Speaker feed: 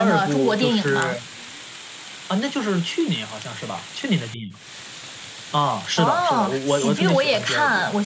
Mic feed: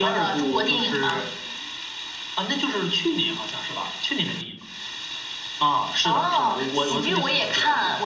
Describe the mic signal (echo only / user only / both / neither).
echo only